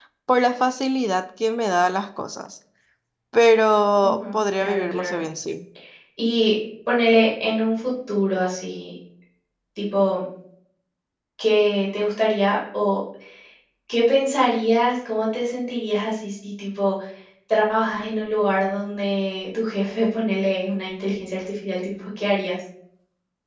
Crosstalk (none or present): present